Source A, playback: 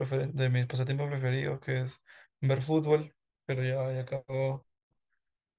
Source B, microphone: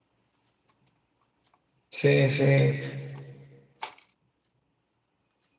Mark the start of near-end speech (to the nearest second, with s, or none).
2 s